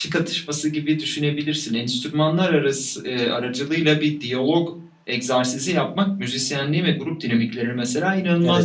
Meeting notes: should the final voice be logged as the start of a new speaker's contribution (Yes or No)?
No